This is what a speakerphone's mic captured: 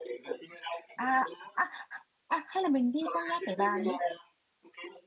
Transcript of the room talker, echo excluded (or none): à à à hay là mình đi Phong Nha Kẻ Bàng đi